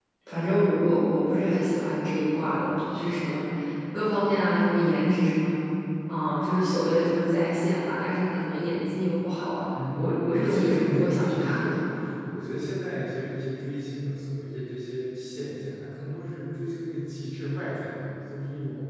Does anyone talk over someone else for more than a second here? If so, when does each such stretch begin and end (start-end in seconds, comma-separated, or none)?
10.4-11.8